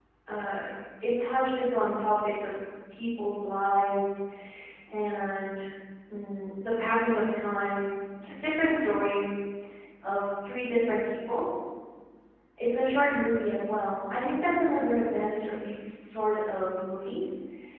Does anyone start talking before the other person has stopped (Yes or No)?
No